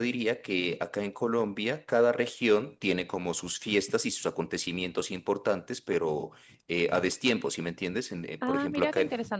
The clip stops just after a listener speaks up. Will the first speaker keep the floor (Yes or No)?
No